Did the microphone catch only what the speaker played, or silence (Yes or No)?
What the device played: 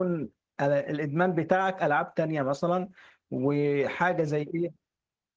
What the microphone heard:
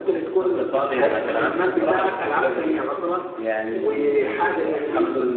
No